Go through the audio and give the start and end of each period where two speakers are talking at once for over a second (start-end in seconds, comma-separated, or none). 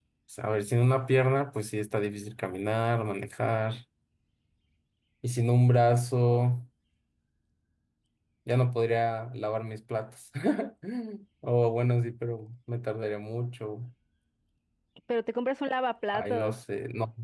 none